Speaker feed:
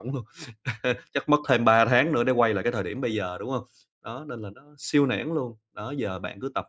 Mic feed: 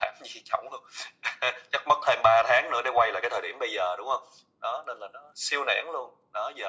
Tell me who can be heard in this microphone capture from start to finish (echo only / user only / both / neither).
echo only